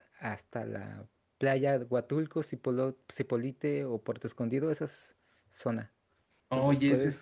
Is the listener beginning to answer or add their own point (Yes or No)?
Yes